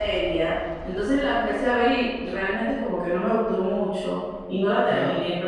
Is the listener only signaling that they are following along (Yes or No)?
Yes